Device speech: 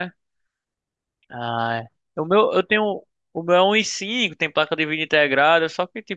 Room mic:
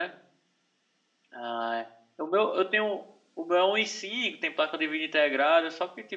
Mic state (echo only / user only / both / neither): echo only